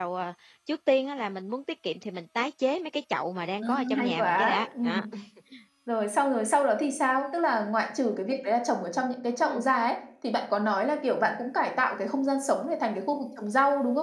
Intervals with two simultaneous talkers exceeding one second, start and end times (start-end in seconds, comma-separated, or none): 3.6-5.0